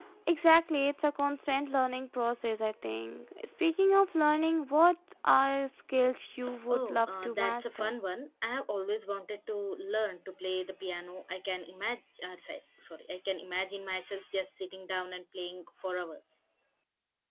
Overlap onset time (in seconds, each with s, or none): 6.7 s